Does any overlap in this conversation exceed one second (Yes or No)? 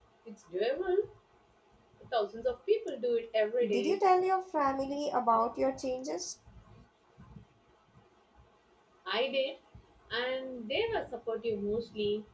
No